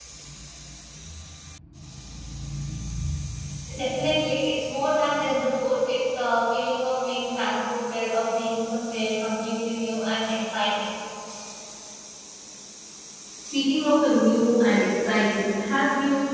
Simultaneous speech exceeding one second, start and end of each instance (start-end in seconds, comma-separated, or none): none